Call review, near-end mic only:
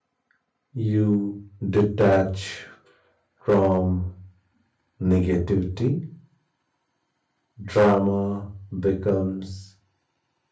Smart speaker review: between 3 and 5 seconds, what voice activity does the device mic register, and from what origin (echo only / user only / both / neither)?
user only